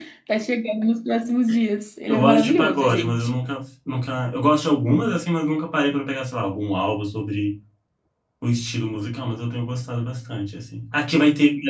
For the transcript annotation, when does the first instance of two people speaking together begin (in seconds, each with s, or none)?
2.1 s